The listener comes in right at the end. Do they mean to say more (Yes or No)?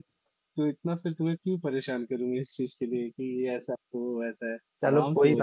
Yes